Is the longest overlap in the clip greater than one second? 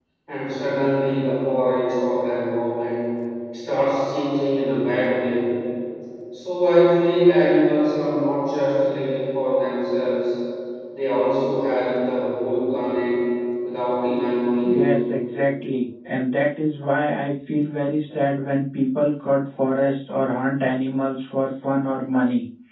No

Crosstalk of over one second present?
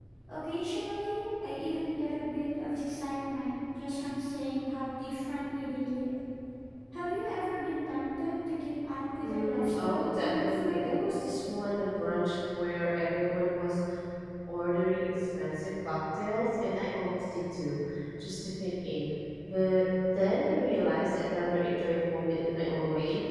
Yes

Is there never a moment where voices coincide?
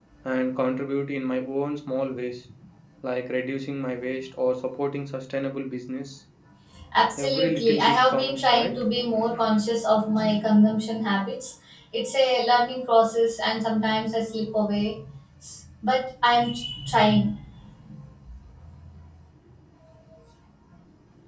No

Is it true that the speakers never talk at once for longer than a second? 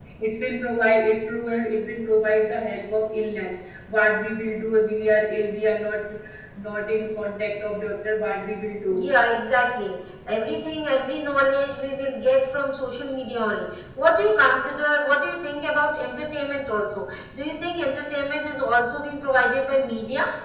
Yes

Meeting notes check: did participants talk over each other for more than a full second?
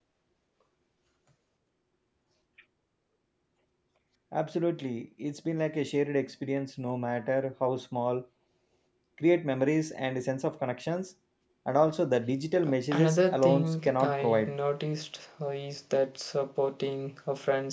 Yes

